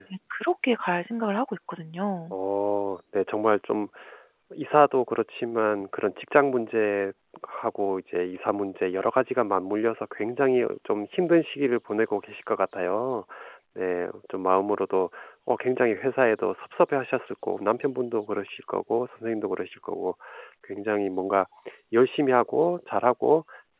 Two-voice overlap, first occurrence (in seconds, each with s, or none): none